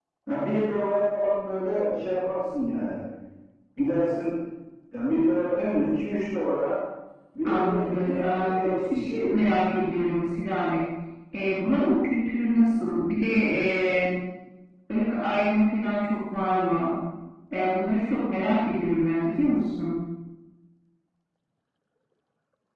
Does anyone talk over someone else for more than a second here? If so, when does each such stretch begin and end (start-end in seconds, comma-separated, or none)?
7.5-9.3